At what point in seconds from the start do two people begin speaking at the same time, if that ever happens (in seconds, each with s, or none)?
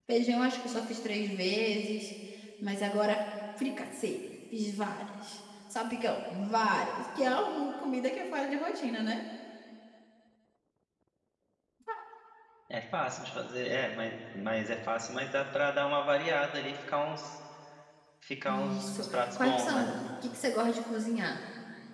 18.5 s